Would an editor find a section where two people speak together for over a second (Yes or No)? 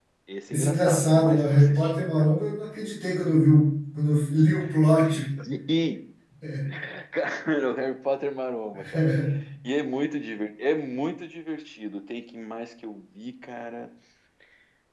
Yes